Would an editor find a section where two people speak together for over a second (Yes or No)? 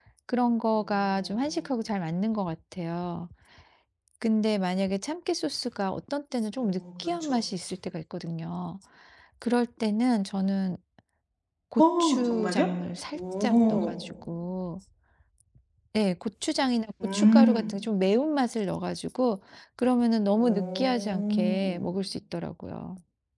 Yes